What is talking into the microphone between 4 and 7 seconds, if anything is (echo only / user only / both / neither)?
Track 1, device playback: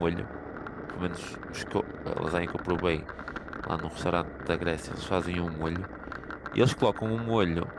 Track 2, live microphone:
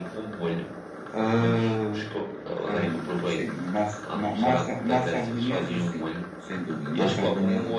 both